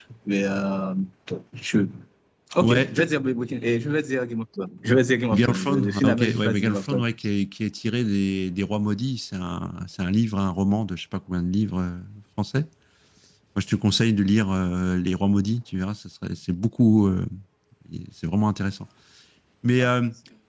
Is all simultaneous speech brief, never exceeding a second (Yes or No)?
No